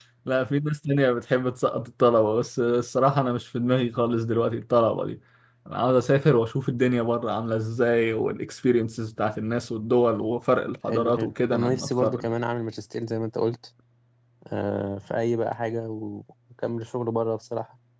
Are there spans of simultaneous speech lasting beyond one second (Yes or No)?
Yes